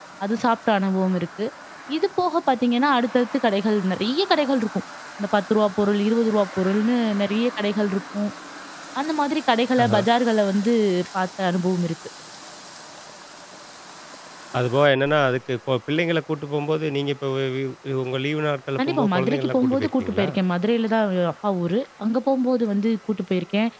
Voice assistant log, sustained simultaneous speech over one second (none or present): present